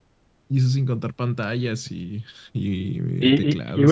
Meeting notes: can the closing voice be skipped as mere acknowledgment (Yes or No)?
No